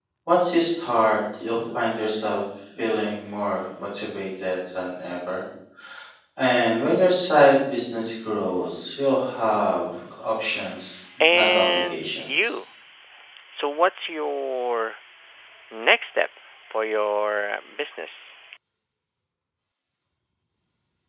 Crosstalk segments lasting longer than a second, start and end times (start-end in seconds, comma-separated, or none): 11.3-12.5